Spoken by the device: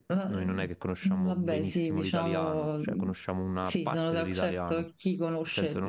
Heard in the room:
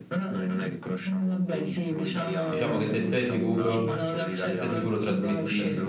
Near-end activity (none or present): present